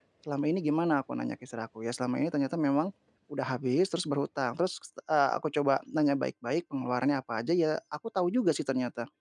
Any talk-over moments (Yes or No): No